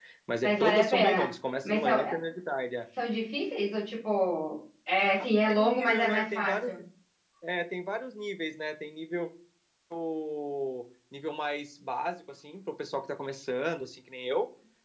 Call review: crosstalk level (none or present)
present